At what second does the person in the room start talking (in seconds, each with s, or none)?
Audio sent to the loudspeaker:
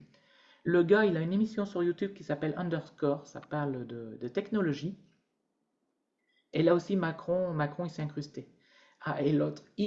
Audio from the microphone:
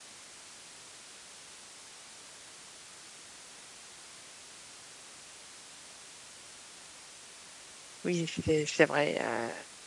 8.0 s